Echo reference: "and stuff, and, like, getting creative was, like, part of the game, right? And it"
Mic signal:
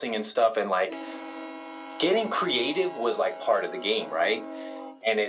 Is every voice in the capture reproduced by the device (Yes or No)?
Yes